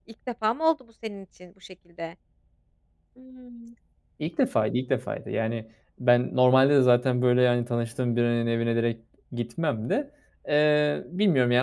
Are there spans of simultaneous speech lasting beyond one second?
No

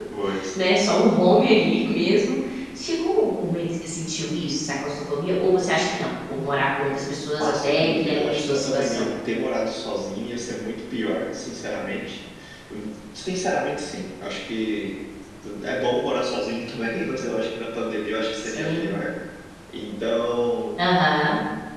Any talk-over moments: Yes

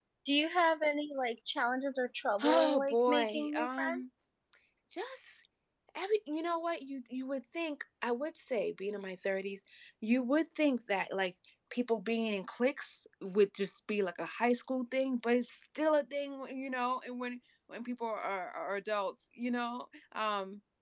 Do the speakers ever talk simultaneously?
Yes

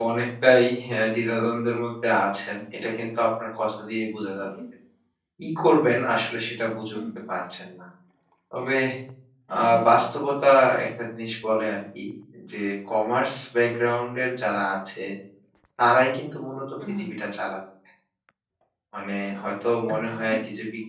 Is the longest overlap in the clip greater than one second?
No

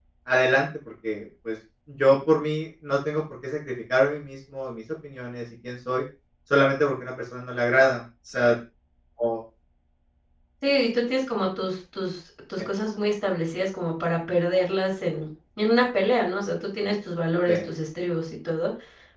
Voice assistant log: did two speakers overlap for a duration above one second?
No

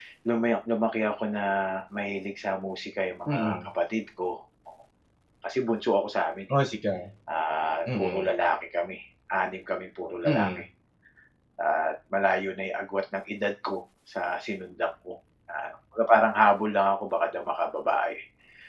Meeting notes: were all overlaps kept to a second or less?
Yes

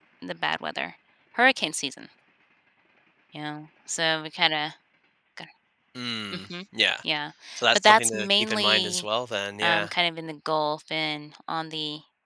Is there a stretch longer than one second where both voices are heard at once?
Yes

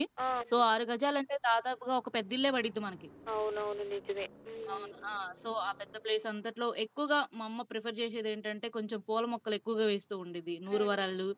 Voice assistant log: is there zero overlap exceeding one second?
Yes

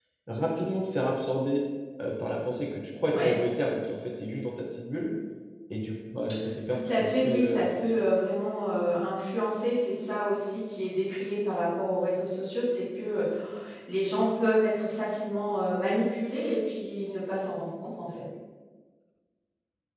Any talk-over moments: Yes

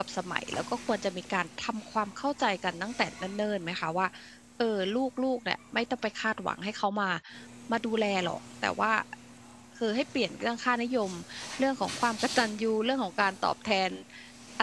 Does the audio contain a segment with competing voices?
No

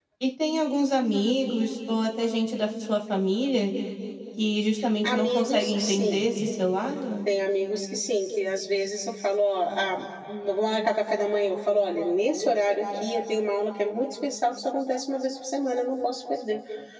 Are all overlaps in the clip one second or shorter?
No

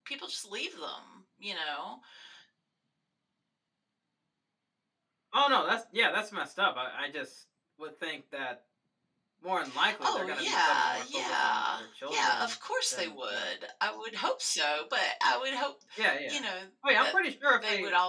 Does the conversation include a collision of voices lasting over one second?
Yes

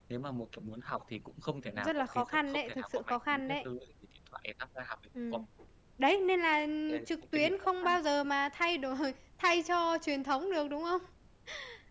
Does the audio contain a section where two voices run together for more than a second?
Yes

